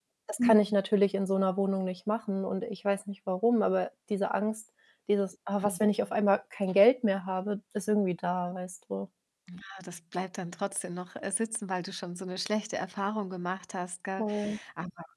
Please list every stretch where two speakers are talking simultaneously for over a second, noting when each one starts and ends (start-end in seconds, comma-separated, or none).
none